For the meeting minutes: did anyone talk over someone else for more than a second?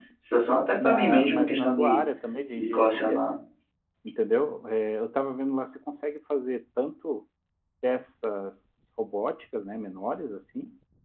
Yes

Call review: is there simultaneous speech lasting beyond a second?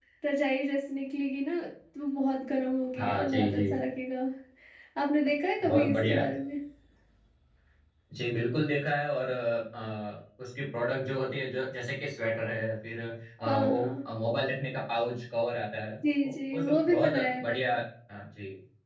Yes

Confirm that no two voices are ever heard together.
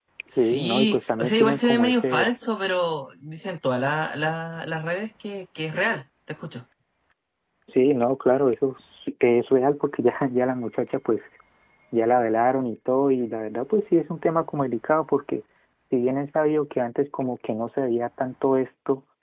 No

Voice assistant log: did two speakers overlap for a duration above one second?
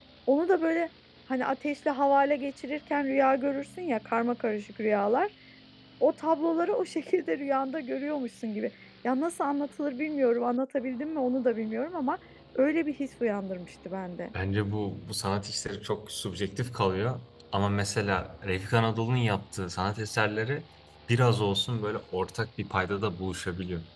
No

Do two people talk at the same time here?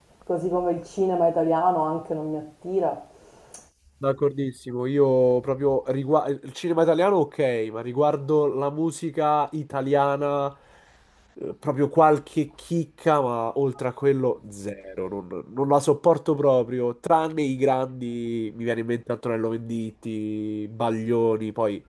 No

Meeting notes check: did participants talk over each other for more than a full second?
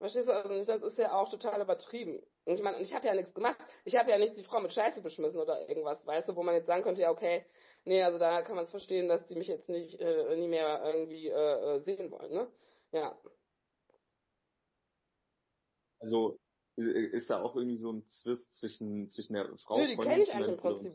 Yes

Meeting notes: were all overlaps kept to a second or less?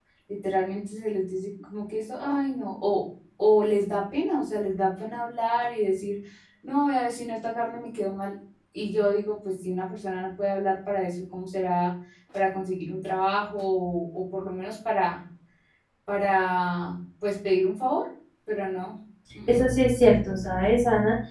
Yes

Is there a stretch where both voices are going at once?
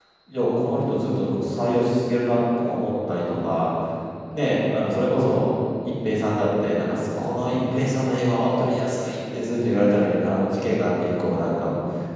No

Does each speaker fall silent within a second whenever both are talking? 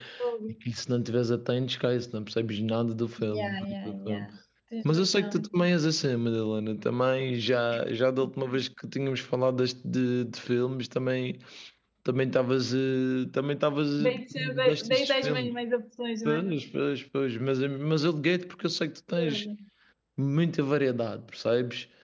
No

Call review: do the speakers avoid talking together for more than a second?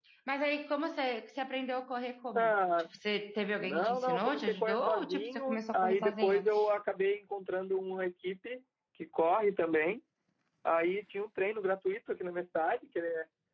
No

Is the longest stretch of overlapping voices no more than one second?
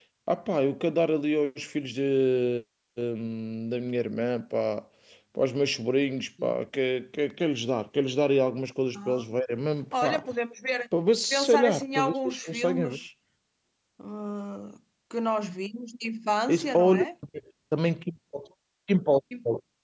No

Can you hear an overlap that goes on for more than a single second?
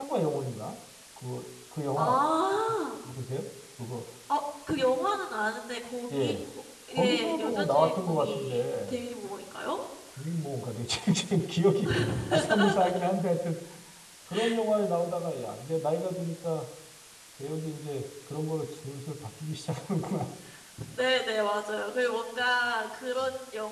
Yes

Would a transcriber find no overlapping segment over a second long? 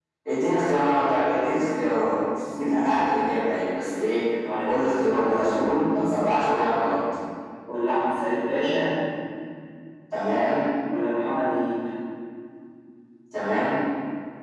No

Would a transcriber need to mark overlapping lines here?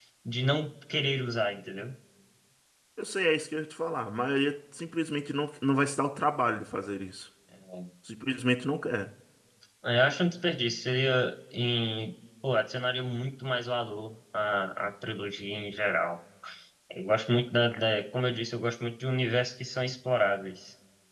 No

